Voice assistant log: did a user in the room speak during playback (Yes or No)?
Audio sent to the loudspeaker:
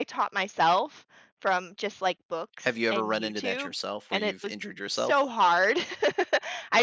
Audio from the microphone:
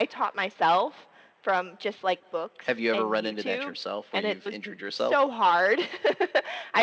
No